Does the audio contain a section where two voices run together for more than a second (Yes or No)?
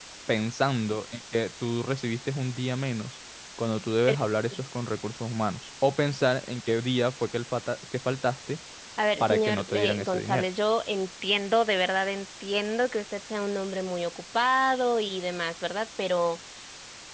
Yes